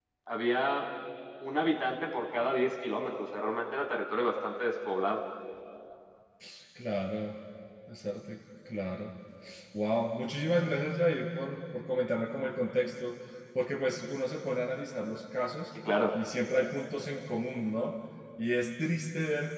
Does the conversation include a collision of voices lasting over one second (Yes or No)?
No